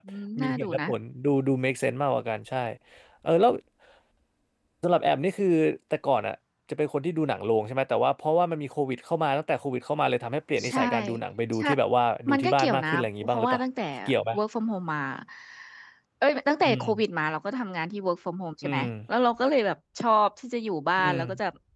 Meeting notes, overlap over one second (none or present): present